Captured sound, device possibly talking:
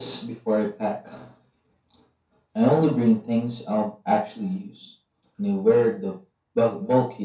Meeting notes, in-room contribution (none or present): none